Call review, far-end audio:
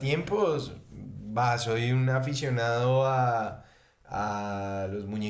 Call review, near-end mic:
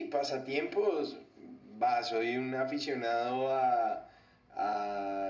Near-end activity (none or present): none